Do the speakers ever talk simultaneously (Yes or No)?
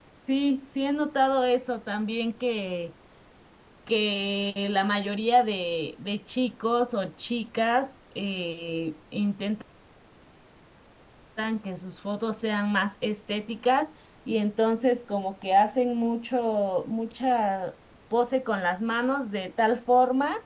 No